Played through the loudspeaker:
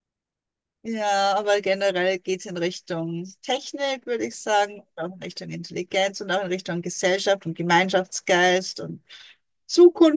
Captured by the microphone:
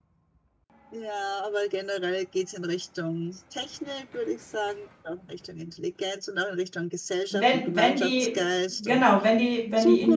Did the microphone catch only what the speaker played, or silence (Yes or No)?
No